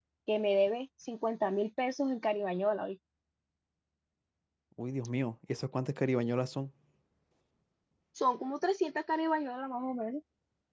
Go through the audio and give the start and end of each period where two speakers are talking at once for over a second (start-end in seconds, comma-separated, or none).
none